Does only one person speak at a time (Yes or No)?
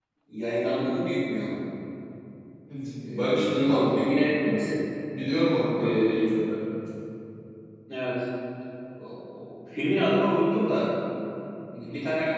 No